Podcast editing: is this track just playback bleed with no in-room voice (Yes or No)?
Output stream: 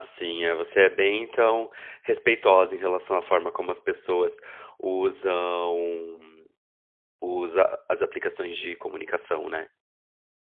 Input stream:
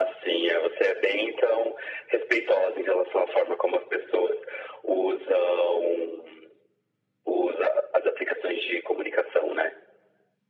Yes